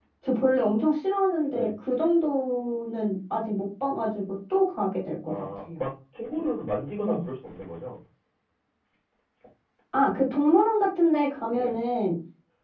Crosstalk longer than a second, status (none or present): none